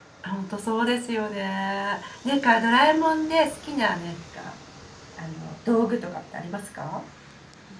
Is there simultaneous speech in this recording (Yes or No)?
No